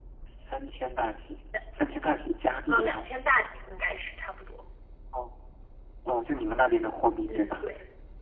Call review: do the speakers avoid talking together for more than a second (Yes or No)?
Yes